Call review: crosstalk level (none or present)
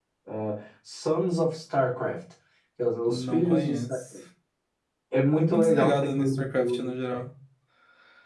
present